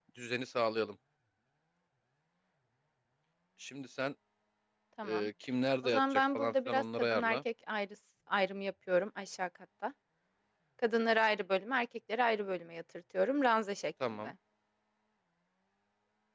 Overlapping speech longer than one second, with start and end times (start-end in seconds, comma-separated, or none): 5.8-7.4